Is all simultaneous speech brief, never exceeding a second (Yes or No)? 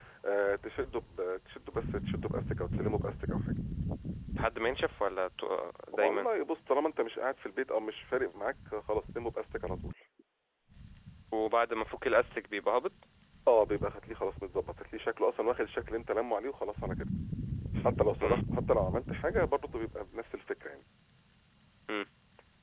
Yes